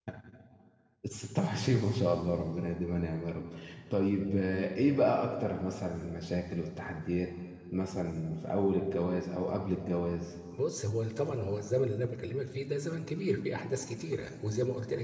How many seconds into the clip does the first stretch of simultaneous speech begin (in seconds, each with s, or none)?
none